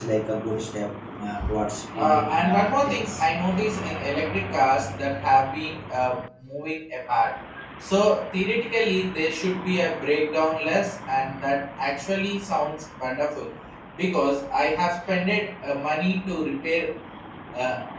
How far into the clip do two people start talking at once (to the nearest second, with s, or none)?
2 s